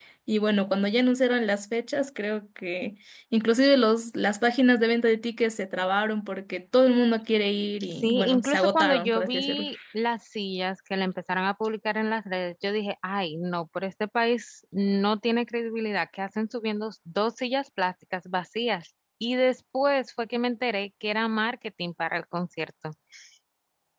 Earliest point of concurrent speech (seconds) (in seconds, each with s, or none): 8.0 s